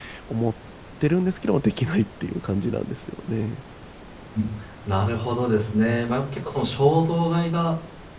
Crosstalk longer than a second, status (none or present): none